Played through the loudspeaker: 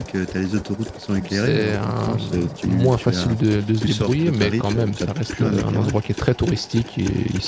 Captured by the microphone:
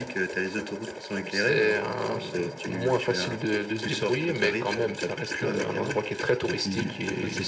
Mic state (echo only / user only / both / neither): both